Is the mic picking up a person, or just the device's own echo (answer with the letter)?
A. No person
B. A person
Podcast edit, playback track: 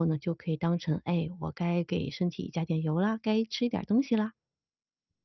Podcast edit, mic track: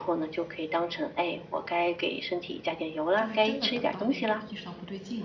B